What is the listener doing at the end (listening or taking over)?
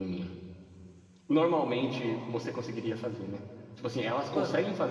listening